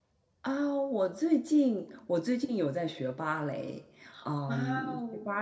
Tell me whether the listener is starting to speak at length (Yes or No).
No